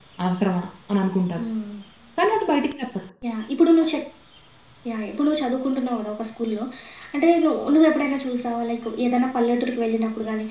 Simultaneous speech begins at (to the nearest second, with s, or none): none